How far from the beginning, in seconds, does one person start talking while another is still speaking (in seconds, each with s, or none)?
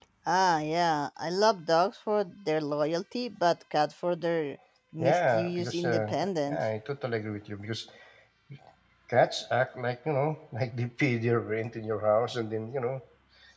5.0 s